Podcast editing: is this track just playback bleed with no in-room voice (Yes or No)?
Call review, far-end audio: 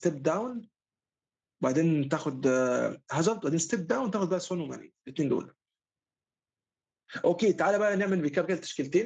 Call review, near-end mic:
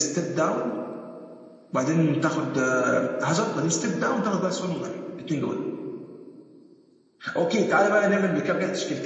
Yes